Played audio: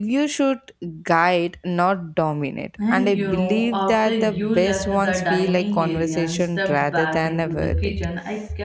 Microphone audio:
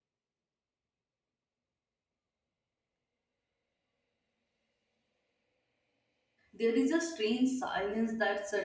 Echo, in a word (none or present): none